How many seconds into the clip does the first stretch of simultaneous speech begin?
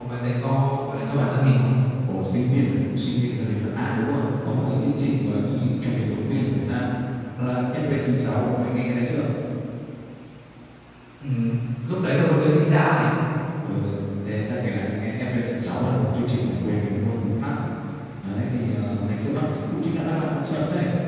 none

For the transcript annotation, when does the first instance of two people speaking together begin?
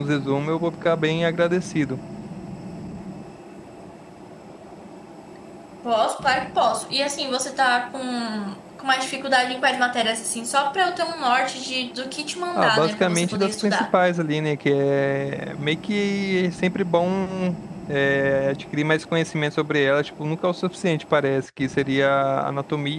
12.6 s

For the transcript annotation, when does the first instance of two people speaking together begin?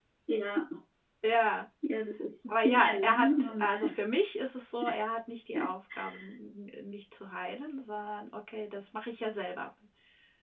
2.6 s

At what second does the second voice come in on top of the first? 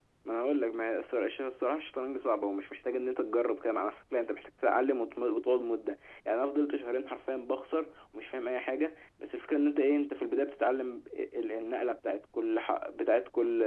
none

